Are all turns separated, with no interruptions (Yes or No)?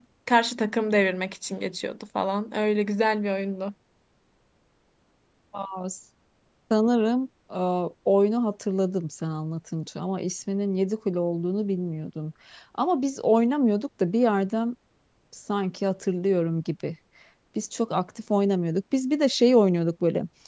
Yes